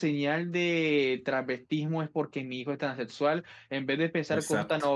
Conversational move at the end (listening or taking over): listening